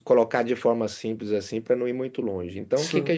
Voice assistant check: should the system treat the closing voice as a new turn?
No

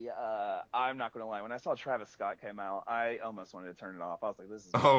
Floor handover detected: Yes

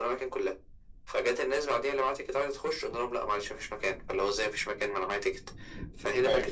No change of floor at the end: Yes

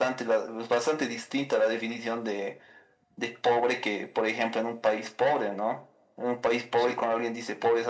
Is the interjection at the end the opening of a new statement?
No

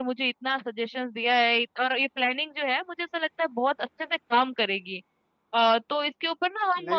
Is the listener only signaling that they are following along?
Yes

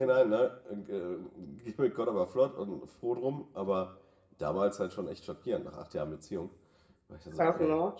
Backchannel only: No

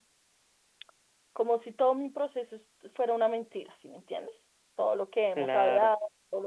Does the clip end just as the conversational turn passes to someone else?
No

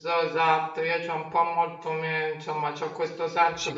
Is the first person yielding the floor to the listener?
No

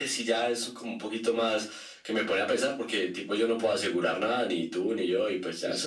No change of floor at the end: Yes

